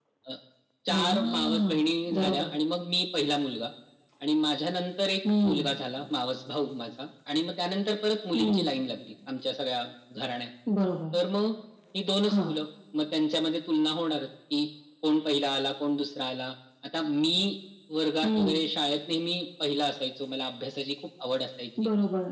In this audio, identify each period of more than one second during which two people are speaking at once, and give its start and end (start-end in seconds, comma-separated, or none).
0.9-2.5